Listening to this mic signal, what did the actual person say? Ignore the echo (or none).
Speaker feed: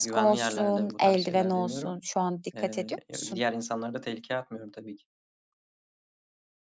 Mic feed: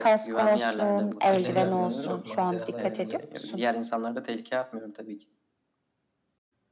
kirleniyordu da çok maceralara atılıyorduk.